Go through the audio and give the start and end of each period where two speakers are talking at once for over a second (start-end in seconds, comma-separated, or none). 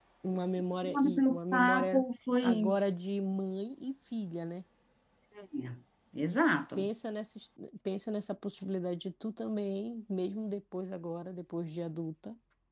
0.8-2.0